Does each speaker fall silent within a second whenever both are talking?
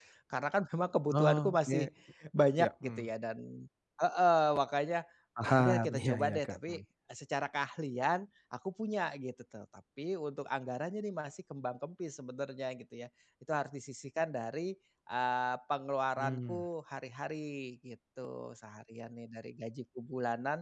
No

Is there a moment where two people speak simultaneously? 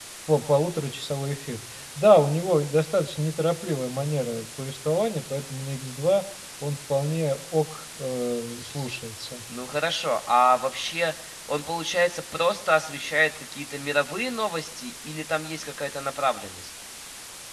No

